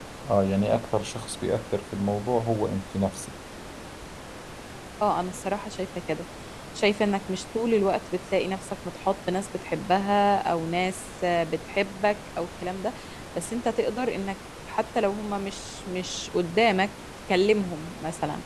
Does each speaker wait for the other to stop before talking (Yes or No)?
Yes